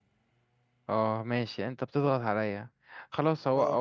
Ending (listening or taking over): listening